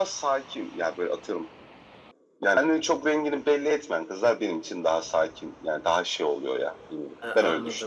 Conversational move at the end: taking over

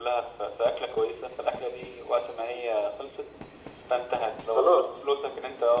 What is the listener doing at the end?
listening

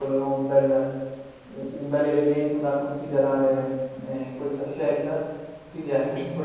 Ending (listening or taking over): listening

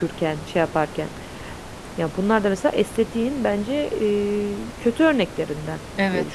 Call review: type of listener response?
taking over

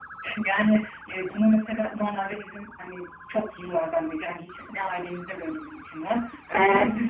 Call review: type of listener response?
listening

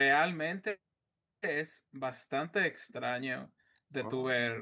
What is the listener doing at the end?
listening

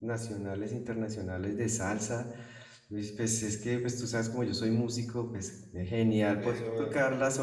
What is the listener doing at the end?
listening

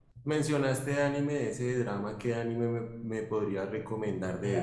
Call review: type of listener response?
taking over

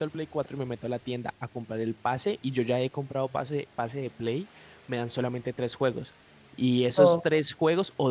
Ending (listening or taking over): listening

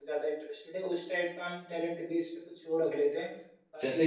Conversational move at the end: taking over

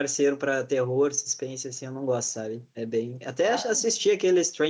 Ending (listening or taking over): listening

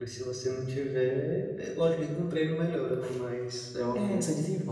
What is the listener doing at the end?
taking over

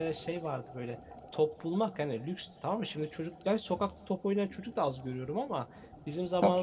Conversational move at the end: listening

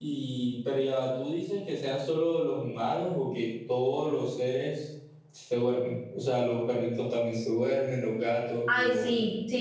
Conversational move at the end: taking over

